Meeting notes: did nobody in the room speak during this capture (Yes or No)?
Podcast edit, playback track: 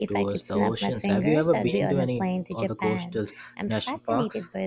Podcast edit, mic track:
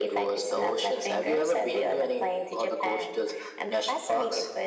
Yes